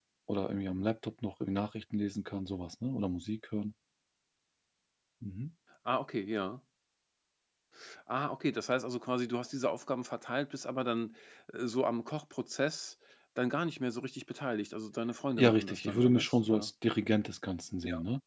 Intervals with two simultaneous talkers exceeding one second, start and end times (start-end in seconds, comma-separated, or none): 15.4-16.7